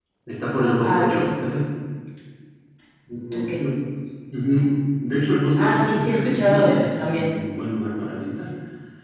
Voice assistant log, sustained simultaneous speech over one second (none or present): present